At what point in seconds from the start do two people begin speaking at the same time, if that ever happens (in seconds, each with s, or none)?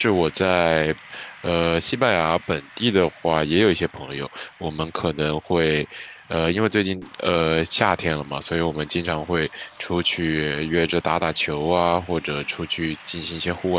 none